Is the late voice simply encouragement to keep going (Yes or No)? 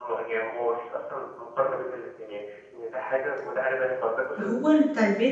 No